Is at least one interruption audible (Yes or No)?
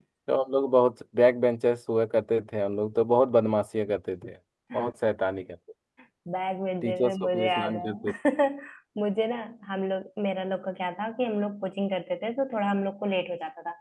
Yes